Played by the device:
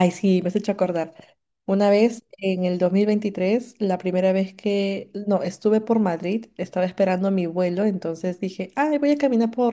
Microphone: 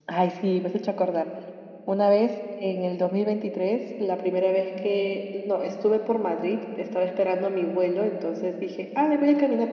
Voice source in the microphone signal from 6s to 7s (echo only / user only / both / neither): echo only